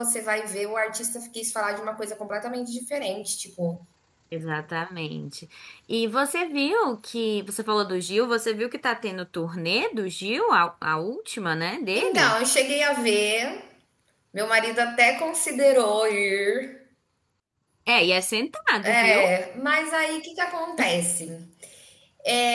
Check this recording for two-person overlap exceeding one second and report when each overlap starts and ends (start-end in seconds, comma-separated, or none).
none